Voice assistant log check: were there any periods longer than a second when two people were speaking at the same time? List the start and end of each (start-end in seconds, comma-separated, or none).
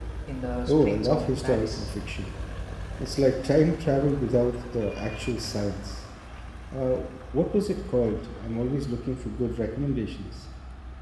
0.7-1.9